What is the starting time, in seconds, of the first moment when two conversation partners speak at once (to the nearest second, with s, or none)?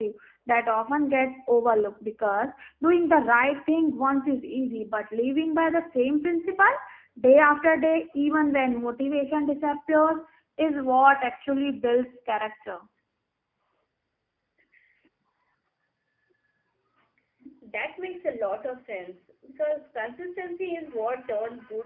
none